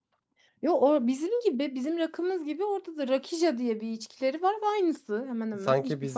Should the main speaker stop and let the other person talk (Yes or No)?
Yes